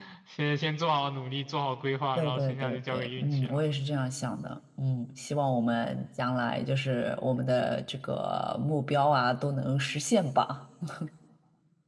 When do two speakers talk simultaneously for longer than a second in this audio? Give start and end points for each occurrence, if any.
2.1-3.6

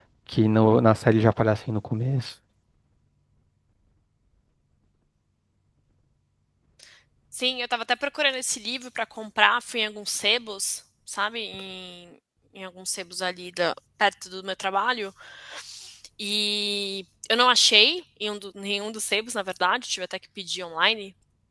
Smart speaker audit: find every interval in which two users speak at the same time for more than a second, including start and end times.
none

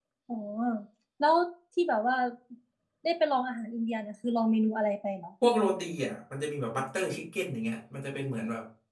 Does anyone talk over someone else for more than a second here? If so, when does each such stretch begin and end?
none

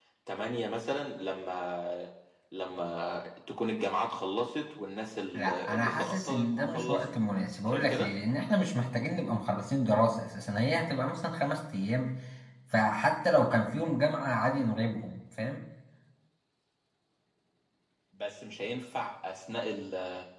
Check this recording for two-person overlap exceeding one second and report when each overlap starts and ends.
5.3-7.0

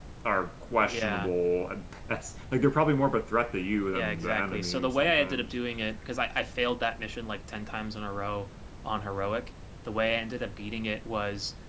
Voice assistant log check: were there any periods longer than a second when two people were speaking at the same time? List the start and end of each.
3.9-5.5

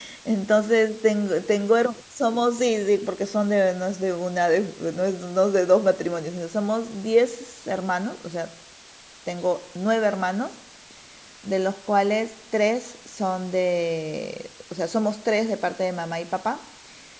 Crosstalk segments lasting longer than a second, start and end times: none

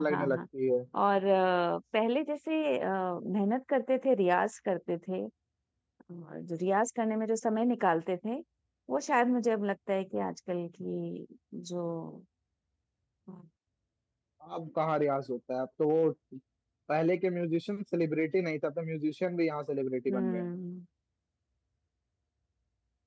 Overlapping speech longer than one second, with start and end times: none

